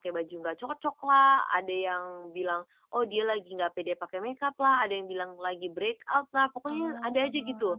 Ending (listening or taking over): listening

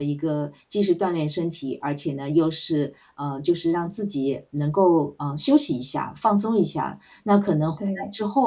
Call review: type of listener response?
listening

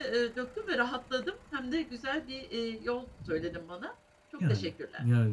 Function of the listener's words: taking over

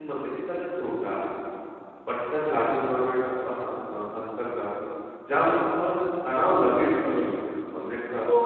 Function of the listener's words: taking over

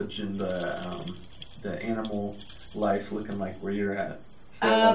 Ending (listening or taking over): taking over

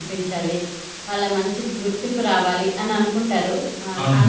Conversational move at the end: taking over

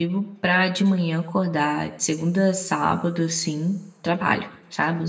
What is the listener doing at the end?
taking over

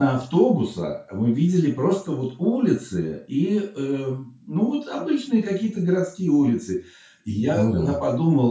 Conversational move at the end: listening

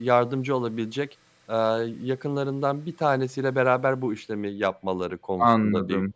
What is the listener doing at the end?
taking over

